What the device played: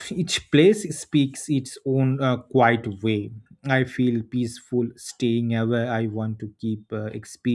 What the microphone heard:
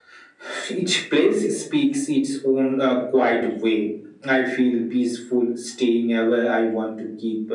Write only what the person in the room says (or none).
none